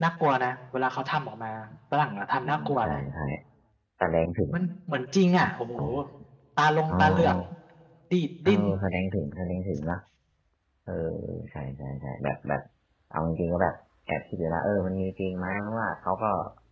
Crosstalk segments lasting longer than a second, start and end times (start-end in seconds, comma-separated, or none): none